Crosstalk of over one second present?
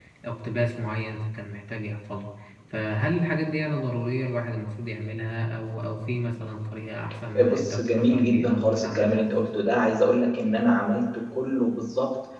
Yes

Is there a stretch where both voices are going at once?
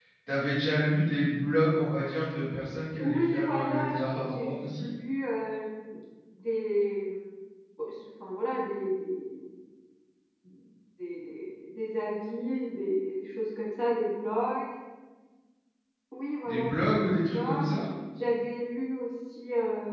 Yes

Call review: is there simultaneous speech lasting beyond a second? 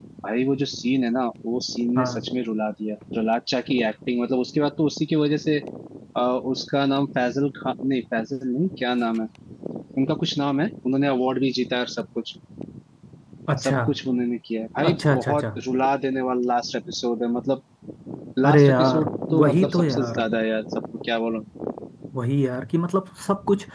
Yes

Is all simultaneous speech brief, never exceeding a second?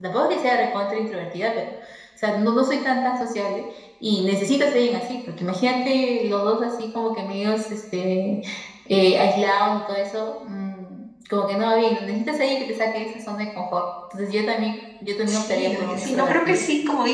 No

